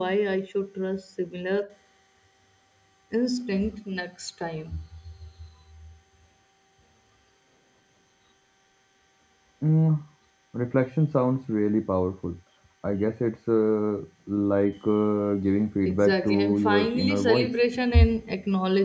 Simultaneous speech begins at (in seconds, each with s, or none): 15.9 s